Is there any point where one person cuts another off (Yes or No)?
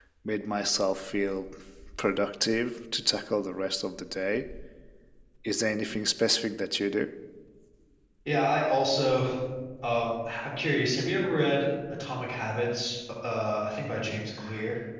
No